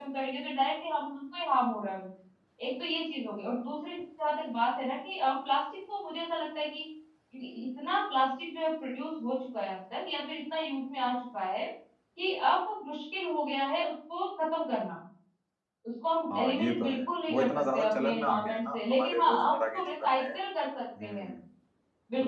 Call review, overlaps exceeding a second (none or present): present